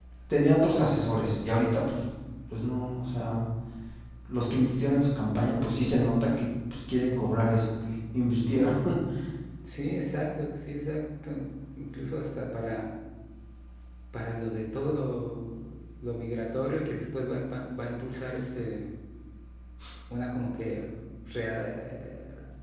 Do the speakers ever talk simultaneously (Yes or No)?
No